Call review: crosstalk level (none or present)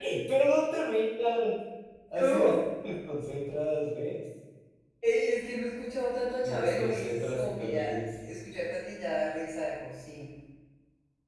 present